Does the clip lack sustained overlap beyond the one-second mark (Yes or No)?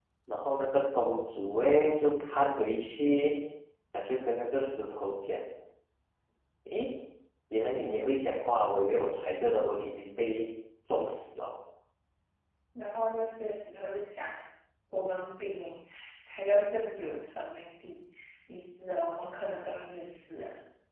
Yes